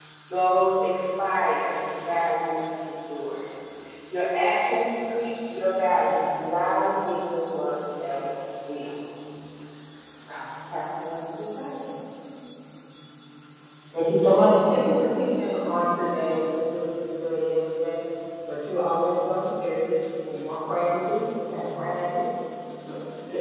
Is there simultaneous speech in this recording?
No

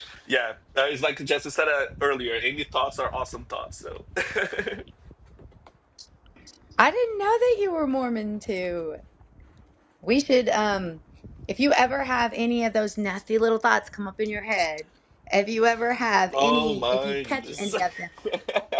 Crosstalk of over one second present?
Yes, from 16.3 s

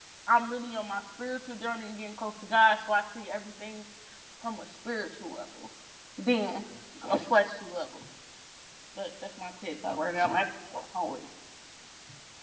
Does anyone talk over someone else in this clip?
No

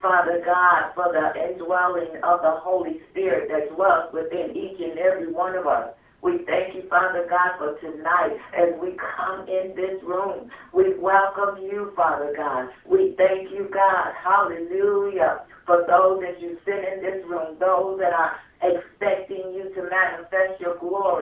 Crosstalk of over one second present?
No

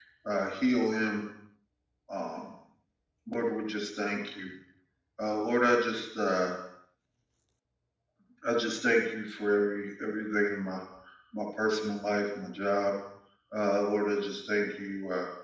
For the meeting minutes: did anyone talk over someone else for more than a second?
No

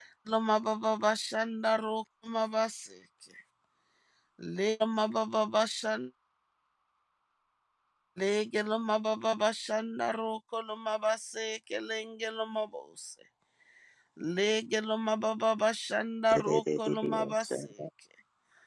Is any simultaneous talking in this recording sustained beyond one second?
Yes, from 16.3 s

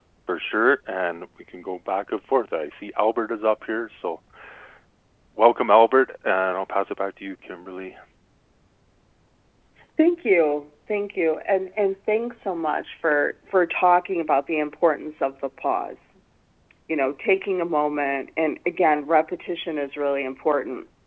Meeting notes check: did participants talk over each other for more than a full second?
No

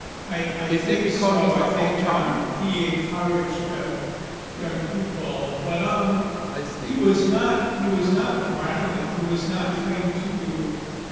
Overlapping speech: Yes, from 0.7 s

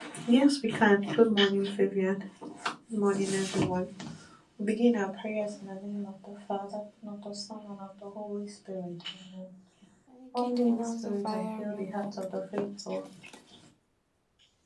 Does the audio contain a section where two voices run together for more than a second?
Yes, from 10.4 s

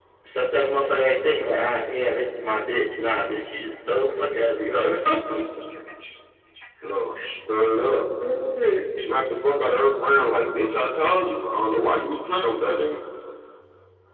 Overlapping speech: No

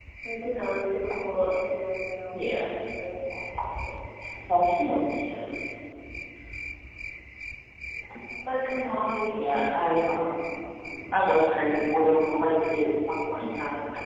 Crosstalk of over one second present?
No

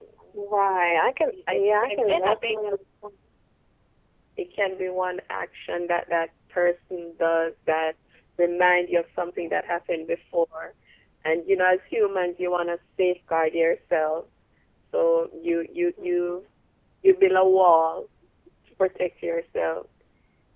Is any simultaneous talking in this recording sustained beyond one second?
Yes, from 1.3 s

